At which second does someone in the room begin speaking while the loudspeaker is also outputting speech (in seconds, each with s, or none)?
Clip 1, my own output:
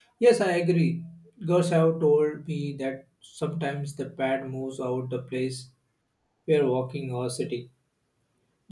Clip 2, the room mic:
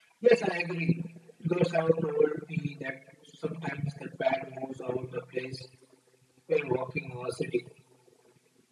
none